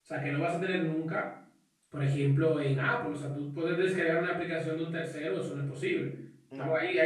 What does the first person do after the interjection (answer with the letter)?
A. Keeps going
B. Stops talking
A